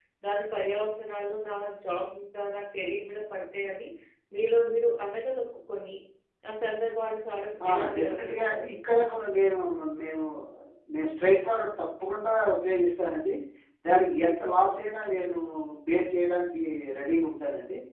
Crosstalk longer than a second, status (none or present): present